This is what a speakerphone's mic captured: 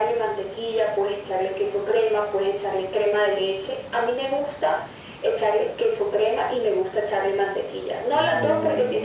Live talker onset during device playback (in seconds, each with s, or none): 8.1 s